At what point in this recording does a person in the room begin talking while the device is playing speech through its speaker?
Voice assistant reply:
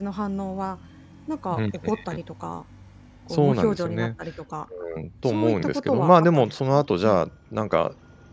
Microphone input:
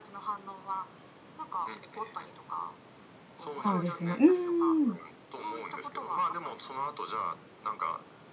3.7 s

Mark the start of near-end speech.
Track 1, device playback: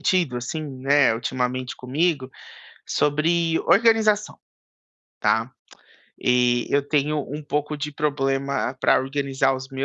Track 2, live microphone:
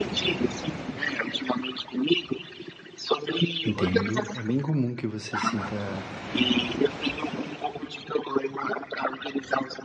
3.6 s

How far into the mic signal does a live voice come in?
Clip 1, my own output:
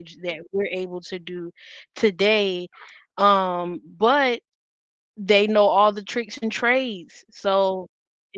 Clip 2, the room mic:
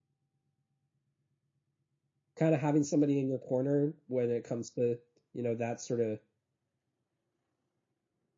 2.4 s

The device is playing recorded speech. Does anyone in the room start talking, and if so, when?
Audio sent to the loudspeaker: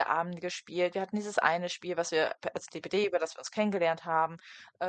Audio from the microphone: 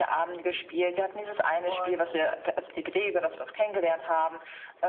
1.6 s

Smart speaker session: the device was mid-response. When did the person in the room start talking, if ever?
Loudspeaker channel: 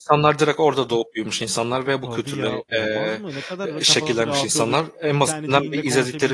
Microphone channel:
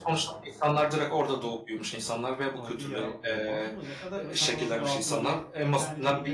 none

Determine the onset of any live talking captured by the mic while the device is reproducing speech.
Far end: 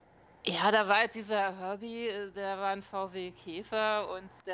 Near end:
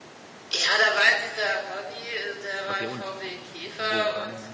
2.7 s

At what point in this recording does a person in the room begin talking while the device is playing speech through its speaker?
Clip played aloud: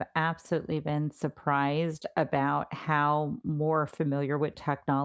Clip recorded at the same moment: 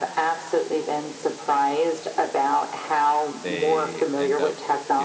3.4 s

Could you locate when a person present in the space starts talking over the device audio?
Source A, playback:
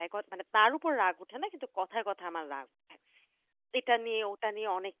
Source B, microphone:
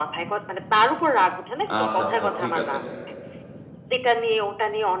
1.7 s

